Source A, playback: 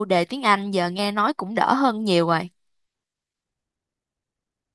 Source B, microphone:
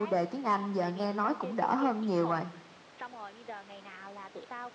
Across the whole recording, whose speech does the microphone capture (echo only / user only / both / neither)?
both